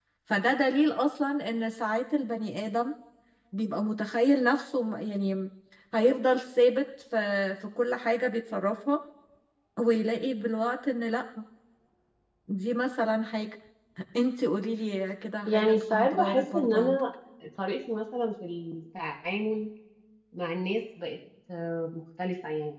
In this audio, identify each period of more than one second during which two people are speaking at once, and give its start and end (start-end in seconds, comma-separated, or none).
15.5-17.0